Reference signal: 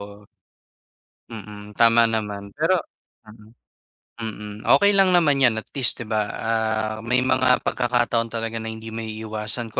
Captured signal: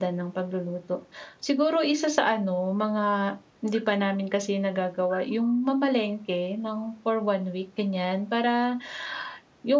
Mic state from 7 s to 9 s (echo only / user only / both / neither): user only